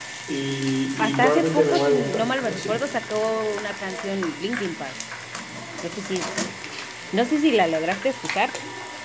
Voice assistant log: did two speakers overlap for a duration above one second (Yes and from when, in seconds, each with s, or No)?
Yes, from 1.0 s